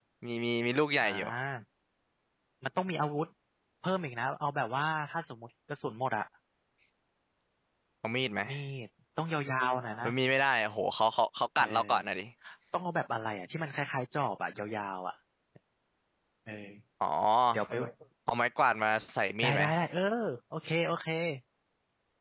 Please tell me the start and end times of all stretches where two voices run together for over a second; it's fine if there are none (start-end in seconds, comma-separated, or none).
none